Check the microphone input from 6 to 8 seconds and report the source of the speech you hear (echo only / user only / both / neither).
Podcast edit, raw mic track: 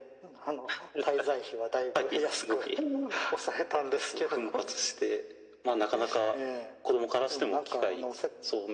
echo only